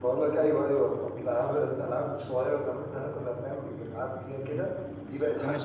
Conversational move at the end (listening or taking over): taking over